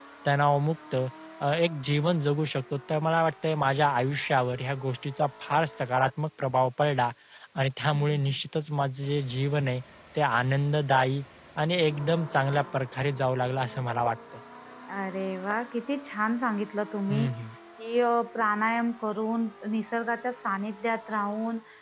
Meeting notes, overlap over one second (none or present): none